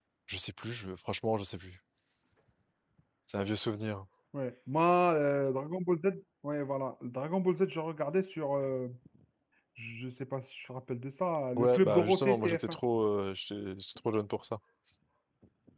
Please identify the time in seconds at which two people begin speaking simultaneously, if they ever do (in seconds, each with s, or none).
11.6 s